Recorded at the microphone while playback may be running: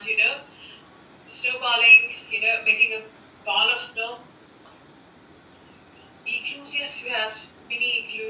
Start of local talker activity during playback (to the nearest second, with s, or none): none